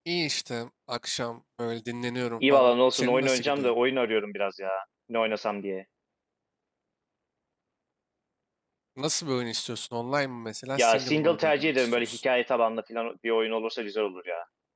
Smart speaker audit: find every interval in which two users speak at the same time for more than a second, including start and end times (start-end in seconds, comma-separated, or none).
2.5-3.7, 10.8-12.2